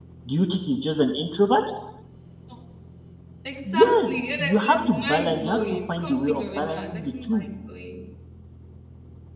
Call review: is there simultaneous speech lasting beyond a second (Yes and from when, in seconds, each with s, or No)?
Yes, from 3.7 s